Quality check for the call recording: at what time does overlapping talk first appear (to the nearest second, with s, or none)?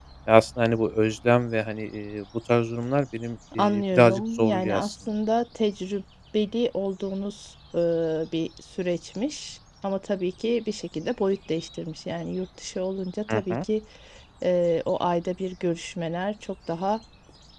4 s